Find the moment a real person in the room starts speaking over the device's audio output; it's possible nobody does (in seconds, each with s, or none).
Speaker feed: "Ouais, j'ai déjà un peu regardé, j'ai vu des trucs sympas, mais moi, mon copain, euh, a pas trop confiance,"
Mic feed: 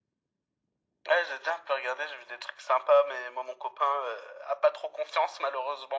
none